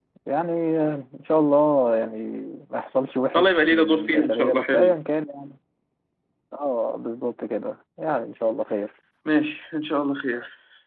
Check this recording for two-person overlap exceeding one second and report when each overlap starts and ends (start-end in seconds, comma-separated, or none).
3.4-4.9